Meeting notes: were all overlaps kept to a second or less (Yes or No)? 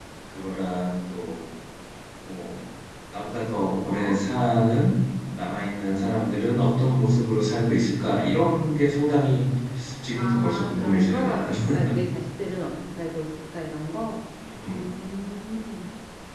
No